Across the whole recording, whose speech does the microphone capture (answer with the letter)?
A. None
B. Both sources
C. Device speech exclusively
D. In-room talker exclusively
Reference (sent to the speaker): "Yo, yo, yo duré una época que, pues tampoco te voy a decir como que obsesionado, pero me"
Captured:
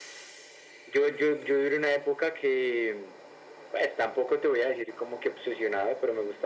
C